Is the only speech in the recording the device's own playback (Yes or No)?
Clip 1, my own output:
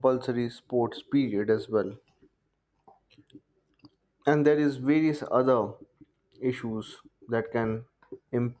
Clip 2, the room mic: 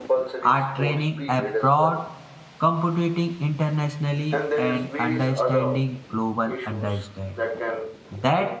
No